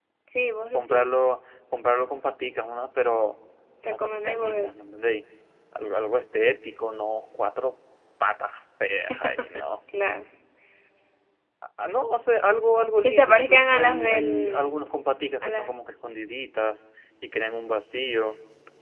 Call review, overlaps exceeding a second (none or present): present